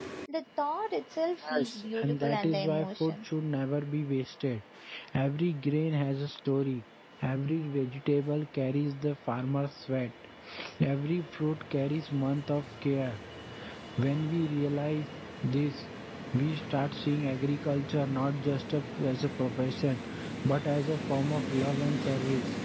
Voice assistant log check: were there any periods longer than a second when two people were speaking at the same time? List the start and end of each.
1.4-3.2

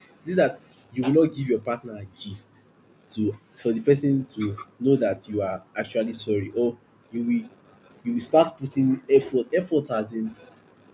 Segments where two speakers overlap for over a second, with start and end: none

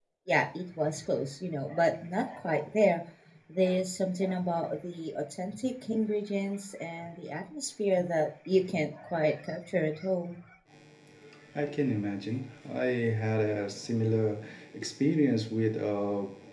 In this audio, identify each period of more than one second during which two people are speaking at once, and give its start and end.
none

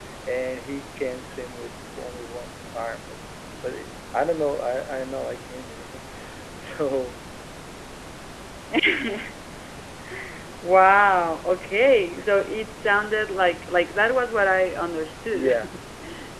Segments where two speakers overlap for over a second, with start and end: none

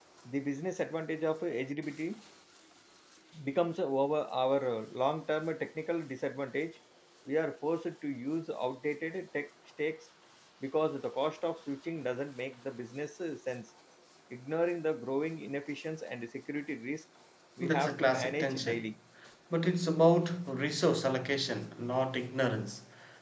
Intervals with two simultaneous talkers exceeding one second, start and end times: 17.6-18.9

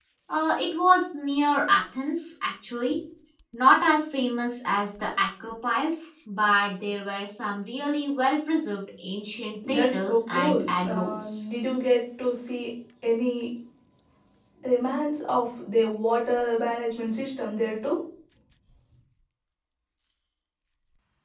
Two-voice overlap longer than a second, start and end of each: 9.7-11.5

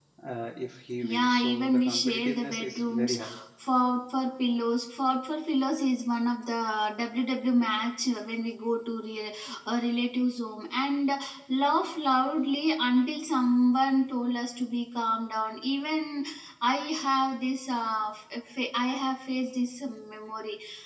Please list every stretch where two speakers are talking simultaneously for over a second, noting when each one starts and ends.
1.0-3.2

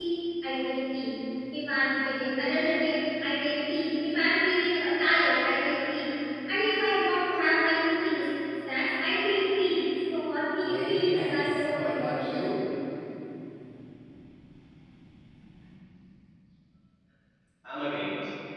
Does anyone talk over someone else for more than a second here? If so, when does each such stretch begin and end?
10.4-12.6

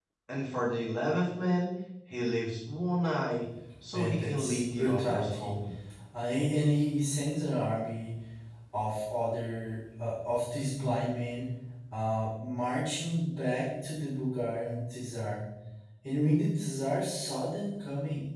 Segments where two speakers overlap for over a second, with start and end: 3.9-5.5

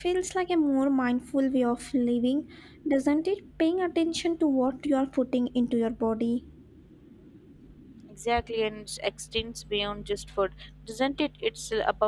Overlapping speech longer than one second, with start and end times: none

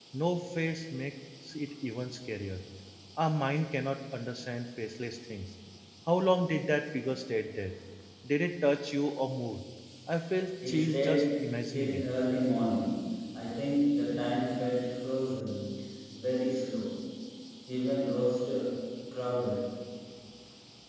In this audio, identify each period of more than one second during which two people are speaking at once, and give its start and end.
10.7-12.1

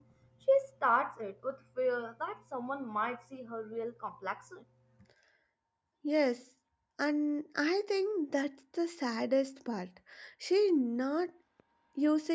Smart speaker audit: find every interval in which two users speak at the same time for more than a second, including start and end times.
none

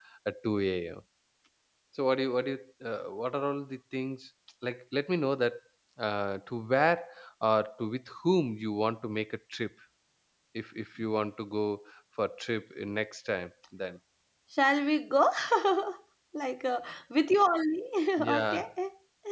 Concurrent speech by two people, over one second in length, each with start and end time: none

